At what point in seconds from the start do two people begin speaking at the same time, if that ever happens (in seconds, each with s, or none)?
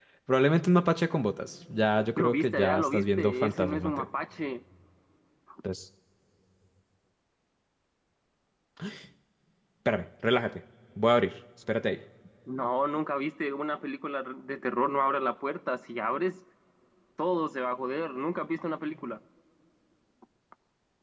2.2 s